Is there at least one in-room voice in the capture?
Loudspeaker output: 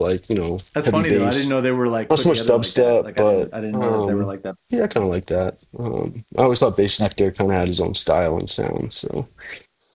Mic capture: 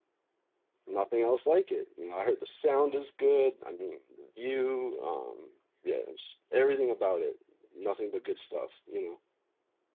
Yes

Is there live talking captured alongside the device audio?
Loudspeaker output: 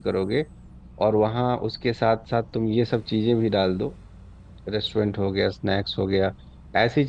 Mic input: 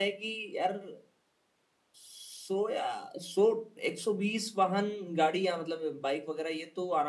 Yes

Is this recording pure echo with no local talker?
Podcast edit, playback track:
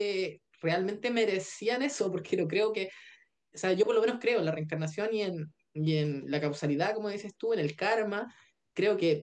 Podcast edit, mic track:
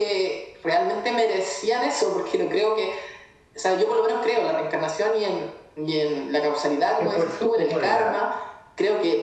No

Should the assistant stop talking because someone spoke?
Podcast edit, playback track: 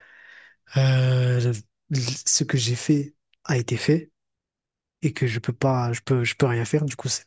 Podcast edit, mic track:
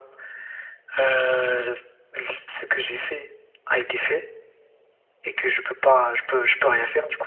No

